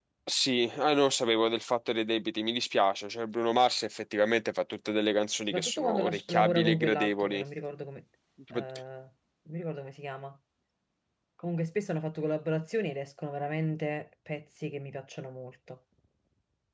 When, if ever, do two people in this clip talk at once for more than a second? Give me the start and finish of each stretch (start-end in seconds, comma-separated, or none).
5.5-7.4